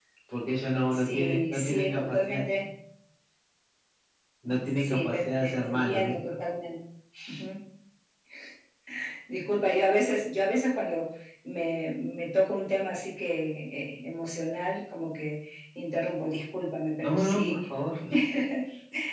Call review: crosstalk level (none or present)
present